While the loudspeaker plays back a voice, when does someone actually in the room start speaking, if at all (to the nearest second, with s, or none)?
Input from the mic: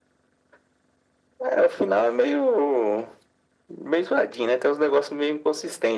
none